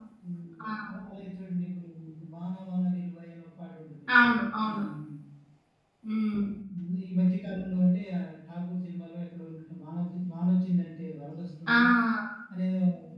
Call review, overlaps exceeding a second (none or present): none